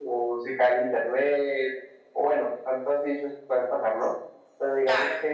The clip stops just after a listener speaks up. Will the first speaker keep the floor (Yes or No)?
Yes